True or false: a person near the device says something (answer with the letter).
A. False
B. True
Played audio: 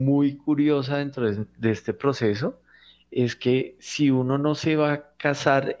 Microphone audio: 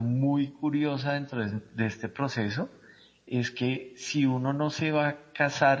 A